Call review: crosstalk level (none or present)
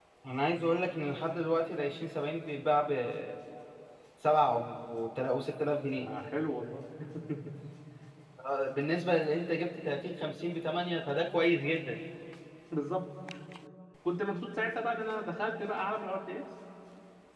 none